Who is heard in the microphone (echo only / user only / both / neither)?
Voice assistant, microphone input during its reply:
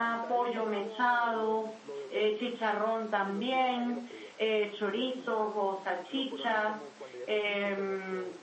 both